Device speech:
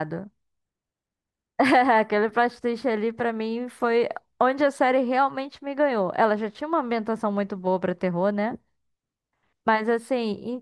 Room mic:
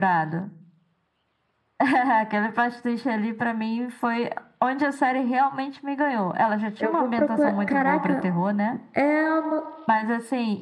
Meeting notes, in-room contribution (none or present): present